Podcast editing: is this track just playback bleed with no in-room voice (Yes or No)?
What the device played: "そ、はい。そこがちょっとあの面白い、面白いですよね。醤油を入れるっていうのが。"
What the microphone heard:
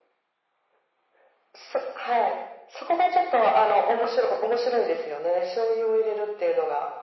Yes